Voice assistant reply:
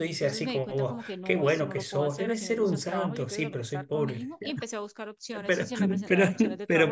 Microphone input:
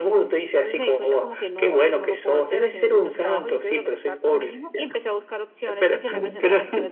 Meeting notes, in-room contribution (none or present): none